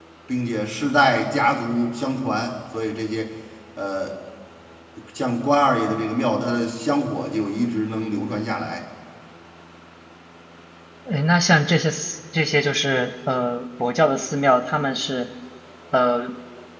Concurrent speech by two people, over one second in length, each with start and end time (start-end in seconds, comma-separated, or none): none